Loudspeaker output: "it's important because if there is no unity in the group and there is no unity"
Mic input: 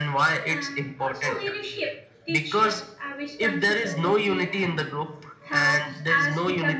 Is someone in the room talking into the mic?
Yes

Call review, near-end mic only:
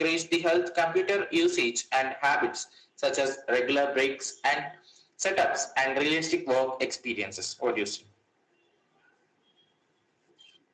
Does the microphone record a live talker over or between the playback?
No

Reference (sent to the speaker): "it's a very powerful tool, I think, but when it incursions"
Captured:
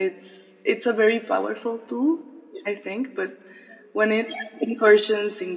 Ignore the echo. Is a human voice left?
No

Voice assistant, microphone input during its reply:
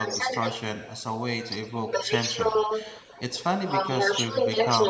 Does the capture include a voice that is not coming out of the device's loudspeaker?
Yes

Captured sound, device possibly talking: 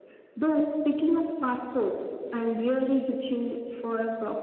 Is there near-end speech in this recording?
No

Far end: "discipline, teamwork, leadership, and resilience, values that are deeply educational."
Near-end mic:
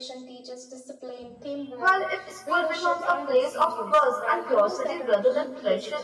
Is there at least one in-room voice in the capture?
Yes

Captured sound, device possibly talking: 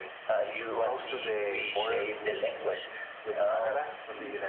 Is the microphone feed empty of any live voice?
No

